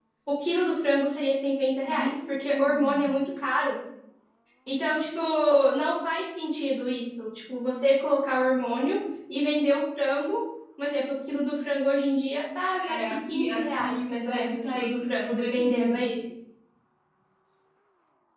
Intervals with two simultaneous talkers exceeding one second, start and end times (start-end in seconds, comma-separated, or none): 1.8-3.1, 12.8-16.2